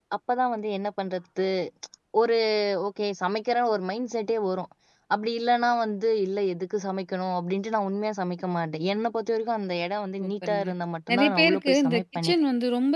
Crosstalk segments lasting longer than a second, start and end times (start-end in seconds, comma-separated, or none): 11.1-12.3